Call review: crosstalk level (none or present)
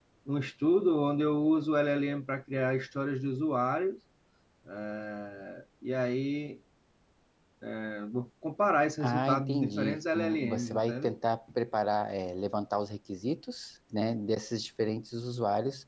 present